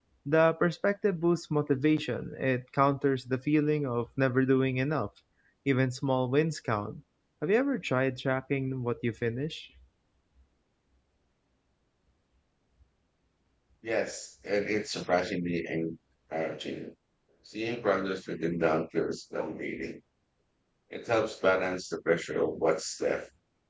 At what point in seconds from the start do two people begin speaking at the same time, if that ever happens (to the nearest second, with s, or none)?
none